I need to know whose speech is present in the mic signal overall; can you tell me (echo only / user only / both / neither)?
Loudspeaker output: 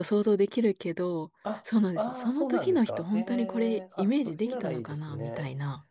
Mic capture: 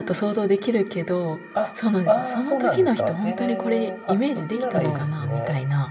both